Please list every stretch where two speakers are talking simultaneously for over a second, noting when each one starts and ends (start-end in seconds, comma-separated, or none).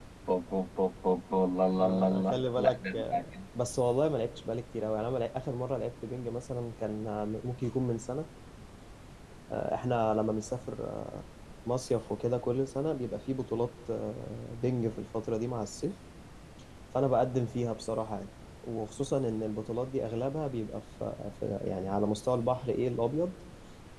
1.8-3.4